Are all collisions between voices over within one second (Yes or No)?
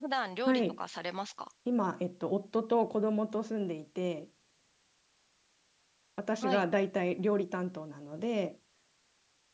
Yes